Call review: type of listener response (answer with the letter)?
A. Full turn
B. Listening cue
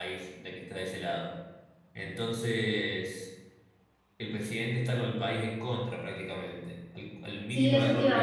A